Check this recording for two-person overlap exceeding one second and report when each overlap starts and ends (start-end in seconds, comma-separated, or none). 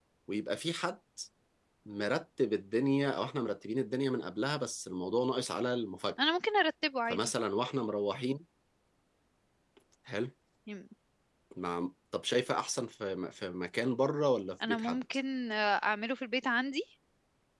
none